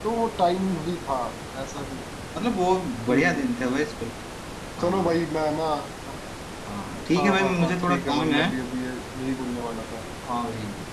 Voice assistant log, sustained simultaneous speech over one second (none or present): present